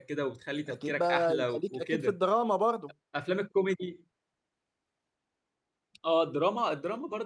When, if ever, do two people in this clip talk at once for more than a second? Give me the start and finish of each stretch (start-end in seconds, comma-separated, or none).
0.7-2.1